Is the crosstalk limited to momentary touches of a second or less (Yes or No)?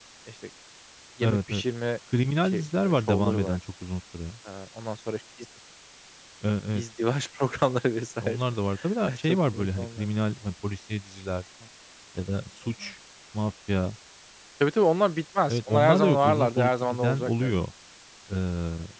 No